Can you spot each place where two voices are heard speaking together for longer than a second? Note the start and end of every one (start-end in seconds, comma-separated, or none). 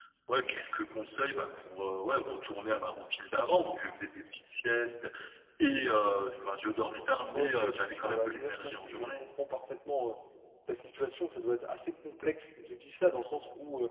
7.3-9.2